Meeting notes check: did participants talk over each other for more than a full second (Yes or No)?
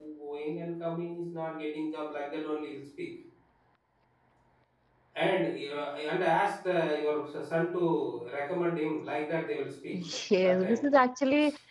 No